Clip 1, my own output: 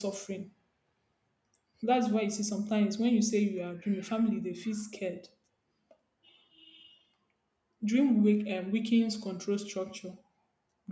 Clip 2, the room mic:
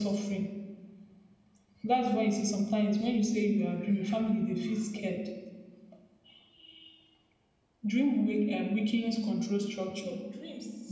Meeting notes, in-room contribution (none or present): present